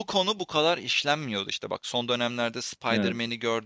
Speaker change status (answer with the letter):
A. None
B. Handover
A